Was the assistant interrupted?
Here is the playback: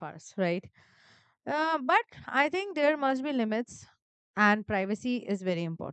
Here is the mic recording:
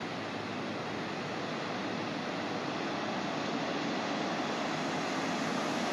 No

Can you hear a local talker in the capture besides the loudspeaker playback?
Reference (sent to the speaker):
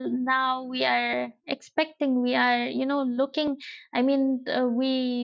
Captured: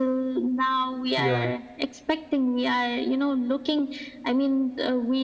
Yes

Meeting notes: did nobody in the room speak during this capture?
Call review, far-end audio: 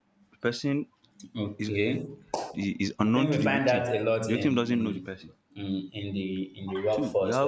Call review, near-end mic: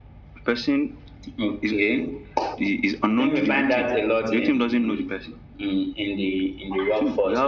Yes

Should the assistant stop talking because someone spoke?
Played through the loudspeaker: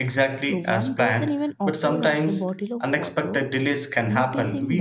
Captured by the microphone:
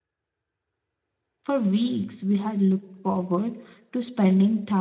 Yes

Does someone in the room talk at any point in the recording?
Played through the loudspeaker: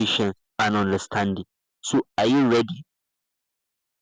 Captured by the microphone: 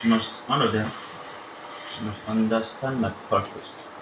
Yes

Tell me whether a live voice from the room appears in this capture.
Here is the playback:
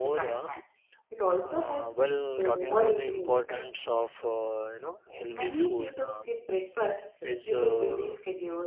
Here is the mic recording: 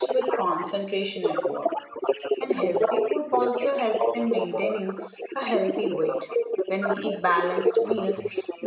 Yes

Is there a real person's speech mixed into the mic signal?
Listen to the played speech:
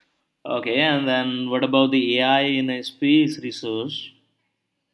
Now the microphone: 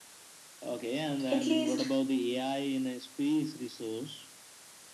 Yes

